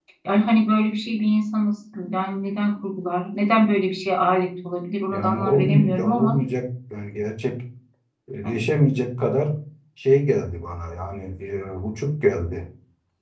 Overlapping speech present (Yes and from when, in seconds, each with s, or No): Yes, from 5.1 s